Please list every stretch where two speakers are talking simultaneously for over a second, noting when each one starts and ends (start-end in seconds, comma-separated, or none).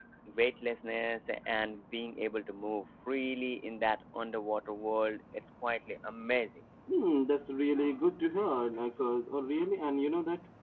none